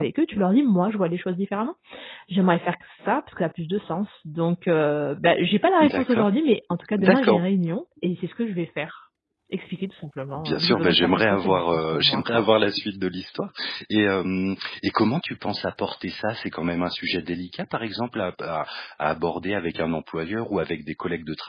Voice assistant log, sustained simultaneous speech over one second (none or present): present